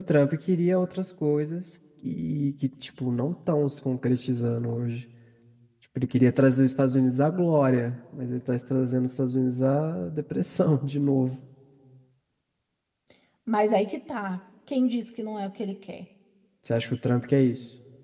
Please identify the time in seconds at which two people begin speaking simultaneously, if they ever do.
none

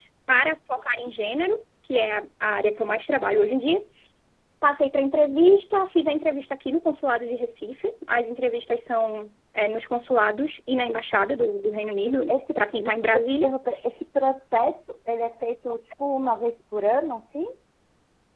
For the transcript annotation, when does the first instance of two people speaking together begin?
12 s

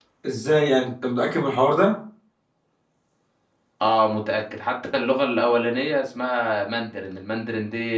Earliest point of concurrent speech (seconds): none

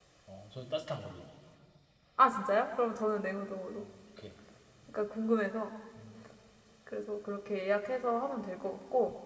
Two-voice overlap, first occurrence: none

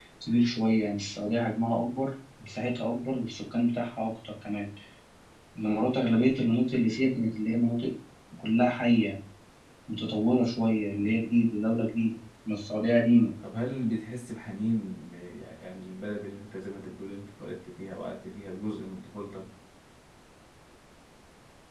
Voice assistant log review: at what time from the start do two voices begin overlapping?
none

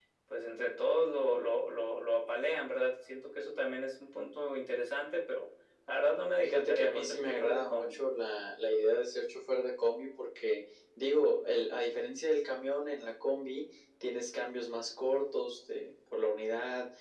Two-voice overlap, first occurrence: 6 s

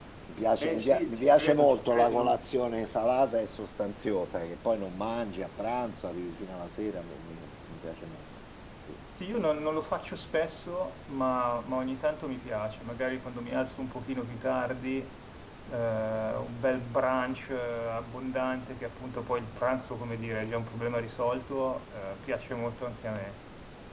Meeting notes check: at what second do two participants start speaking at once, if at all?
1 s

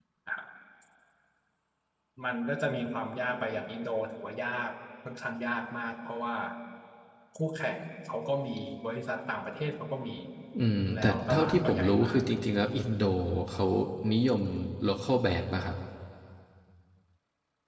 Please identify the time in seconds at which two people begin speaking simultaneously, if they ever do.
11 s

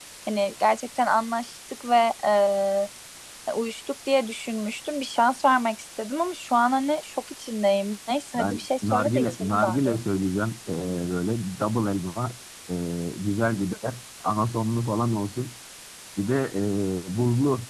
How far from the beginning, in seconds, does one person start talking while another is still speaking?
8 s

